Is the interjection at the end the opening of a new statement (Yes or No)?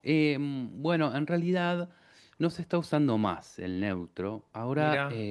No